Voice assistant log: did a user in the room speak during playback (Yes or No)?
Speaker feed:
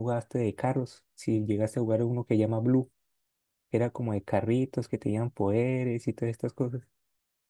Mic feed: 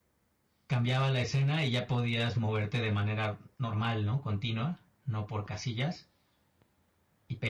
Yes